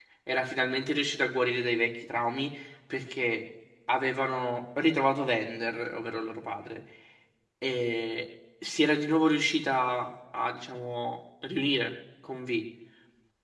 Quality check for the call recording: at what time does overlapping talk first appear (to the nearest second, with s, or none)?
none